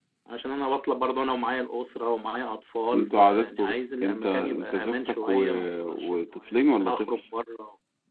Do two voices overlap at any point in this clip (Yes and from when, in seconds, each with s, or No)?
Yes, from 2.9 s